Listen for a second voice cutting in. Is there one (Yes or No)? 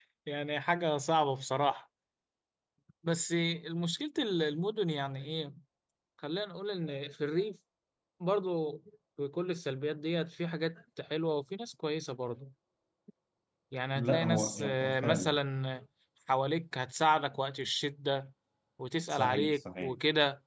Yes